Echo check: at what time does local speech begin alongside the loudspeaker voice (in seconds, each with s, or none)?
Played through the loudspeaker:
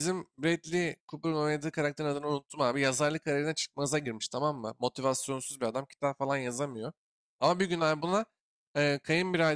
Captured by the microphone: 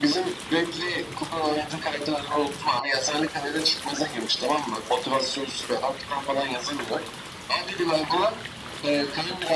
none